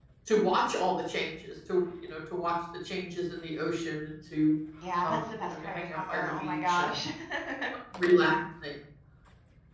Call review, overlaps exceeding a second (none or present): present